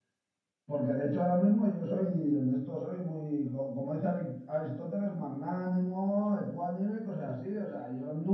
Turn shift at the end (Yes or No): No